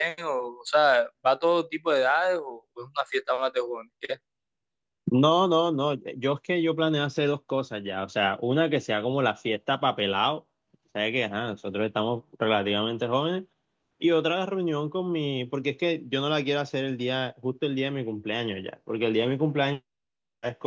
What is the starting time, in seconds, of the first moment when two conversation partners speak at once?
none

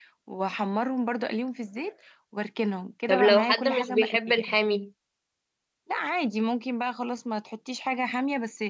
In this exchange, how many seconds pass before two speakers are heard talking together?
3 s

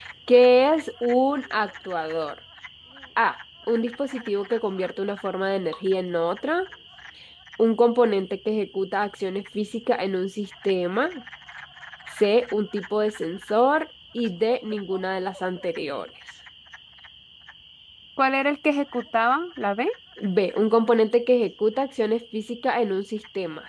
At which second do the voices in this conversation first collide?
none

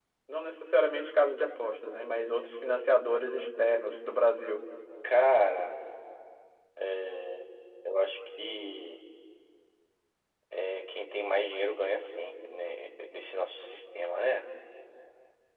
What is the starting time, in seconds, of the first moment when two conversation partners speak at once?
none

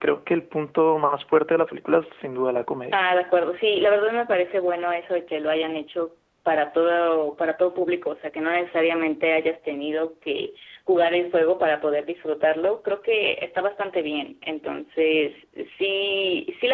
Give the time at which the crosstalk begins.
none

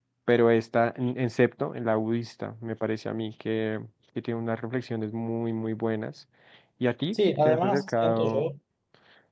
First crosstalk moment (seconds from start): 7 s

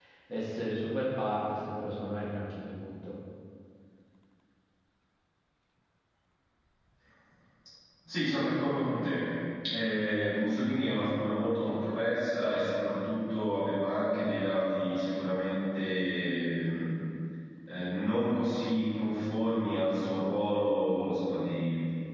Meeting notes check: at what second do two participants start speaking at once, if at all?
none

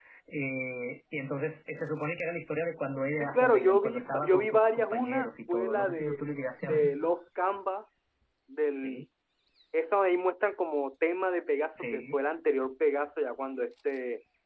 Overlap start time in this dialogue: 3 s

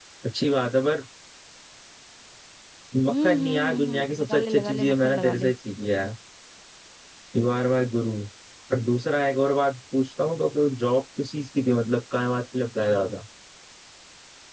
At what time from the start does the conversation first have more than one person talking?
3 s

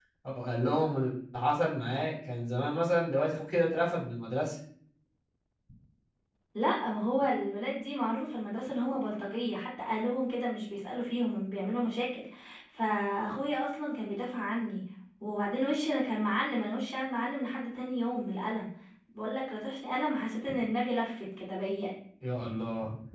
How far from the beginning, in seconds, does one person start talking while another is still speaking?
none

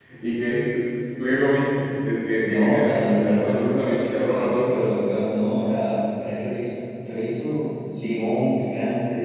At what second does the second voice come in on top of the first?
2 s

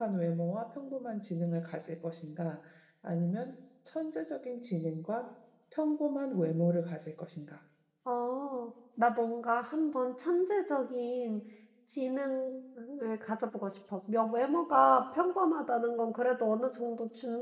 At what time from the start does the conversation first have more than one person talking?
none

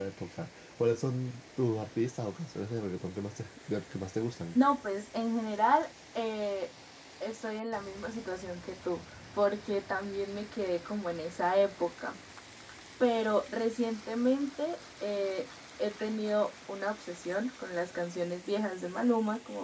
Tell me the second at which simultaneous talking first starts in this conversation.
none

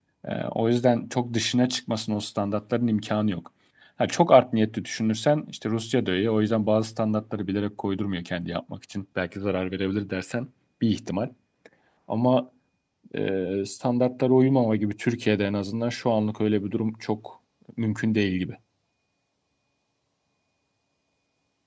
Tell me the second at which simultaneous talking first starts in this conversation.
none

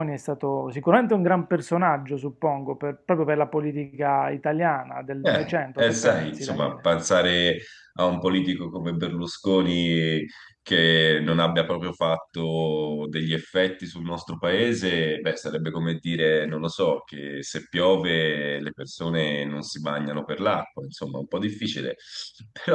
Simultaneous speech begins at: 5 s

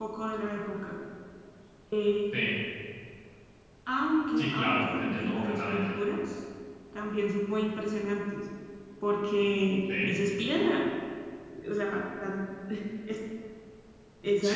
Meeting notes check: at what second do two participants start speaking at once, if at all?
4 s

